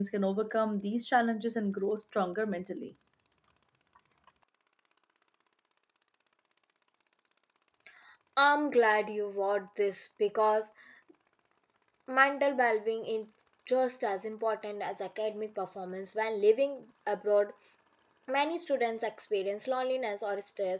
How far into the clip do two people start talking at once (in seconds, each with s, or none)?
none